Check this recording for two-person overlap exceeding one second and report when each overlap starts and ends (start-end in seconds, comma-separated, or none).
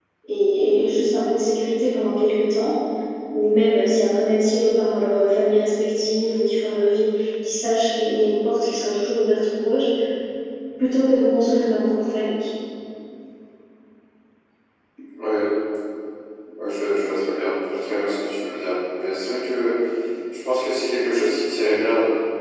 none